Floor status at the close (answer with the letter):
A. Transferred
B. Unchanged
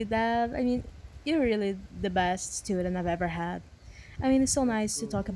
B